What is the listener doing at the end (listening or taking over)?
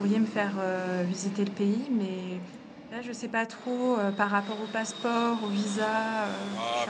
taking over